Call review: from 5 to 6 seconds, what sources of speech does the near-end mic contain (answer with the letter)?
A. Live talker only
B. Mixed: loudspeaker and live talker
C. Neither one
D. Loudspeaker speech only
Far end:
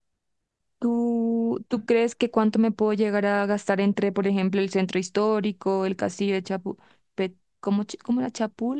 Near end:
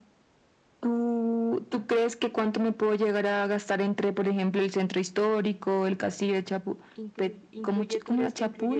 D